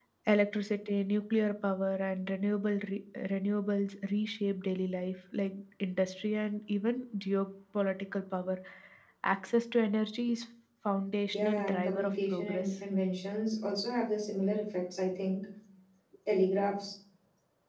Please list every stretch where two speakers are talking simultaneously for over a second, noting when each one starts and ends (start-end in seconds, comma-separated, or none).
11.3-12.7